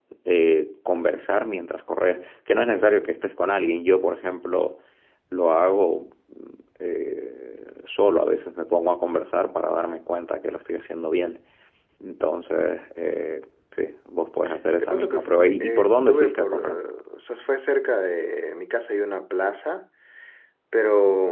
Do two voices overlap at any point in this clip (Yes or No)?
Yes